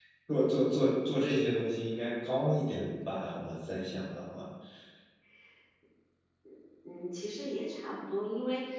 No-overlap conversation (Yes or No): Yes